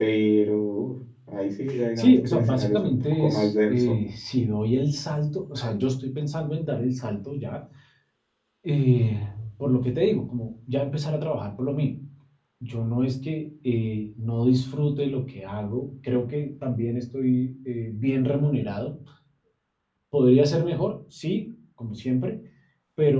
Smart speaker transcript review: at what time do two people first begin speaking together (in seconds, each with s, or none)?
2.0 s